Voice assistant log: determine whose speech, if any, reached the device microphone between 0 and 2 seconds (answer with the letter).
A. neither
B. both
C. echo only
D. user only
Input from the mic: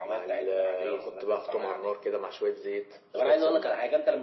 C